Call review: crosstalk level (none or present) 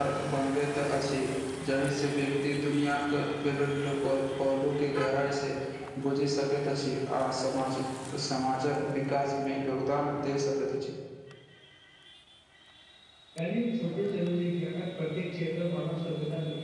none